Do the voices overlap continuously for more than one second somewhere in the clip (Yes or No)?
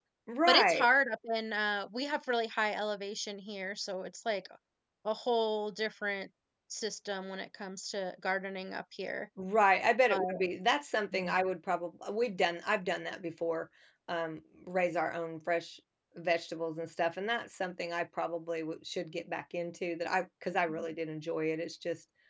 No